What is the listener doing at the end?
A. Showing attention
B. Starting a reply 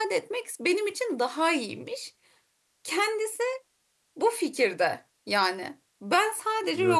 A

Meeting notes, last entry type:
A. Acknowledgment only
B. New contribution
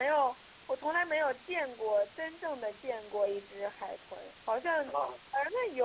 A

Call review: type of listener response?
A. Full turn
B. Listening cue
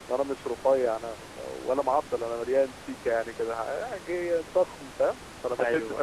B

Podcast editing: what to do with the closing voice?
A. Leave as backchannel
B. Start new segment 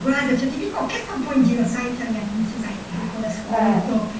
A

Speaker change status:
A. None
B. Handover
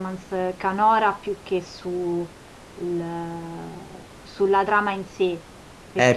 B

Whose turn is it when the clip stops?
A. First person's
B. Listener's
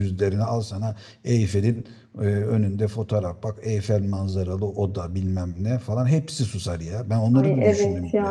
B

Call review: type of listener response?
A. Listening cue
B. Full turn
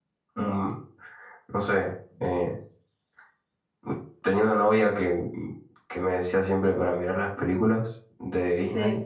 A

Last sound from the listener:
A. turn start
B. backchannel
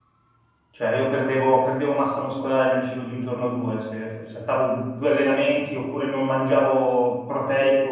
A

